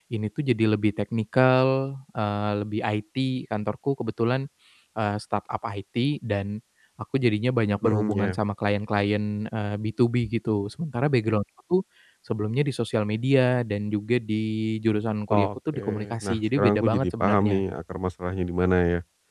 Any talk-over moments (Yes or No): Yes